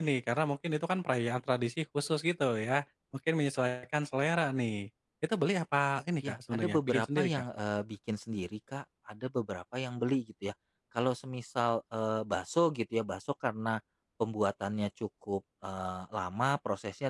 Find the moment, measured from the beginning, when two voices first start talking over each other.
6.2 s

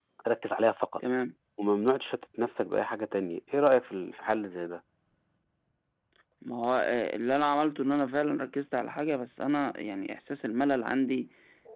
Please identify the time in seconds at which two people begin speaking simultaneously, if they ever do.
none

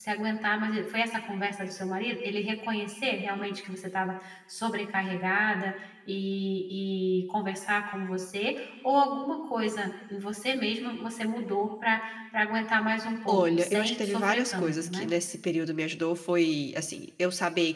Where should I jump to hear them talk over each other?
13.3 s

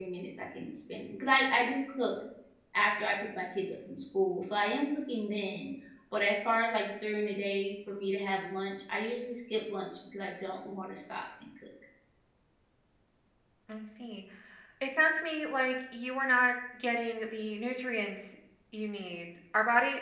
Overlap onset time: none

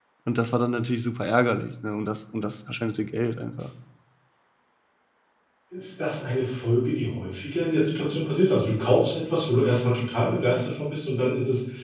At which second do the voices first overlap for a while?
none

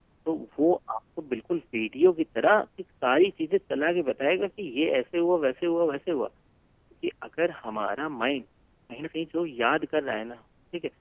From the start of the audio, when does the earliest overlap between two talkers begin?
none

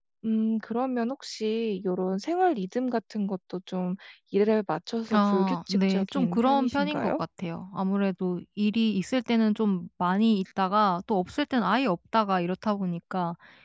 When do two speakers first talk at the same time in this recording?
5.1 s

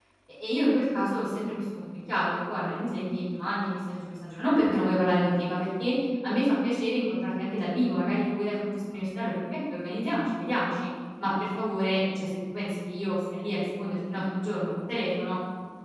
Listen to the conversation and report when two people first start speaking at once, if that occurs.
none

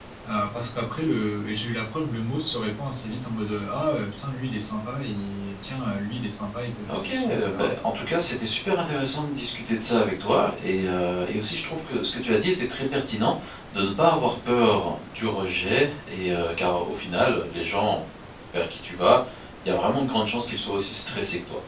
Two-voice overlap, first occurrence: 6.9 s

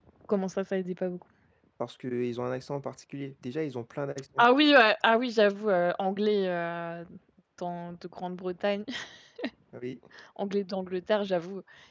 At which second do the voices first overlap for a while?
none

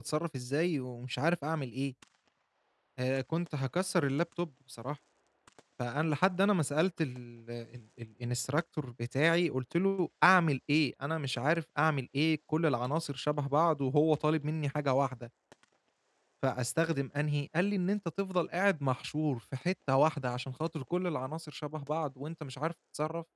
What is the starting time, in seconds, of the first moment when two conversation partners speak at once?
none

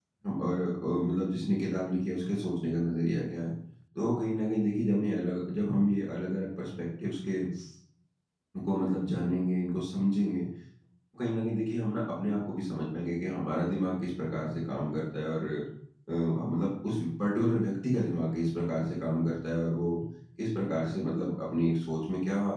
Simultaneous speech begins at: none

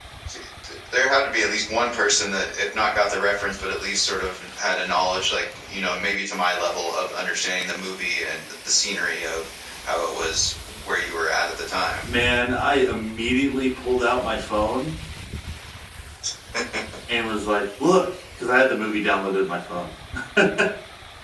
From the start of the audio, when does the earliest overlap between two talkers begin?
none

